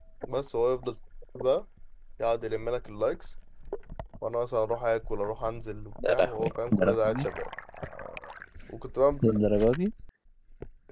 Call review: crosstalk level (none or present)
present